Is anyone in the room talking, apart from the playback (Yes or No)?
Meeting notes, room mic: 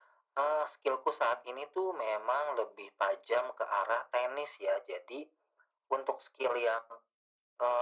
No